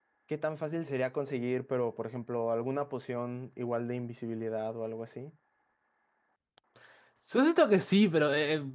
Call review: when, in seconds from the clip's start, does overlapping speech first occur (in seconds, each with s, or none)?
none